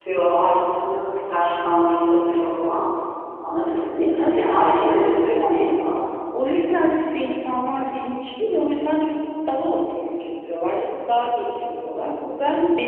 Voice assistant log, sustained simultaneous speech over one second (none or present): present